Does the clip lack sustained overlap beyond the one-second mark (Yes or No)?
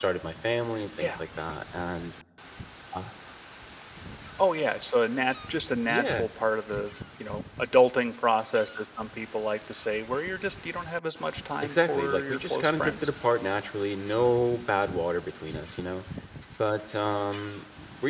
No